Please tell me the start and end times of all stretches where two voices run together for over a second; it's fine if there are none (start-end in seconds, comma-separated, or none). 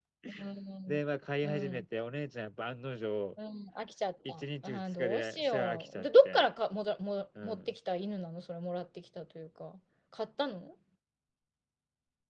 4.3-6.5